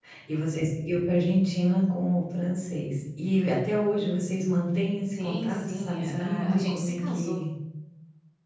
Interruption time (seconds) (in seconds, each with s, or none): 5.1 s